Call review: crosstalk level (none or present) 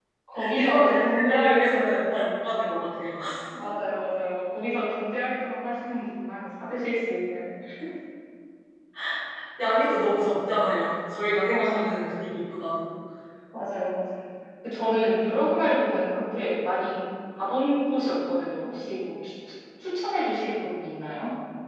present